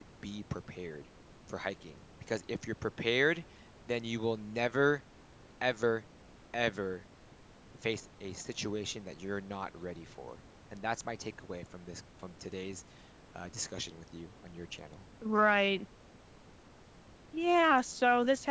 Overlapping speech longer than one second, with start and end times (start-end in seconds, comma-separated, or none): none